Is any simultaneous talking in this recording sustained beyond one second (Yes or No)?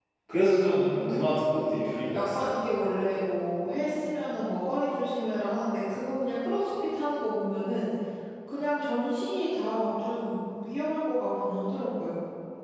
Yes